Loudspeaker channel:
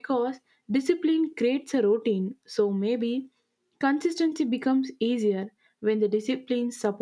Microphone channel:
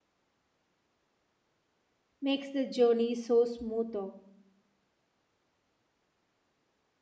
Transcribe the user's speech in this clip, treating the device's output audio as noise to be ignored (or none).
makes the journey so smooth.